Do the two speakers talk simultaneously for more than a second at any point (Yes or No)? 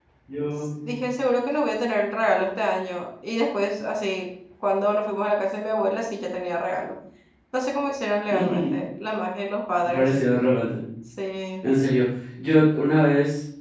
No